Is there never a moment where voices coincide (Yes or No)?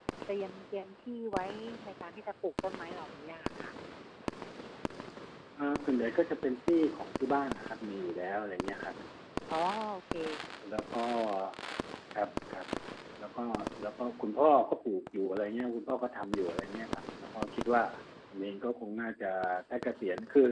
Yes